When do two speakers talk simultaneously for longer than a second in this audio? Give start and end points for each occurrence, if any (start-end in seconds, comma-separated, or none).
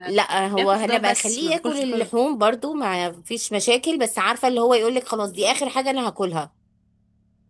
0.6-2.1